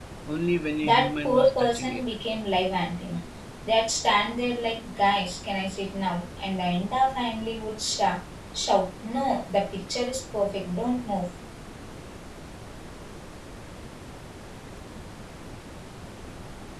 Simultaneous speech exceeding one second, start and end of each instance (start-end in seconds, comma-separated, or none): 0.8-2.0